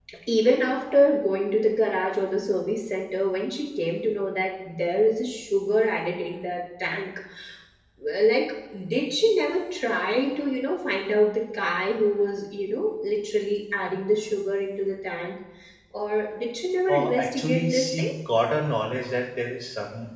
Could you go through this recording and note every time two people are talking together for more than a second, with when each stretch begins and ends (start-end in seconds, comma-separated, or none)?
16.9-18.1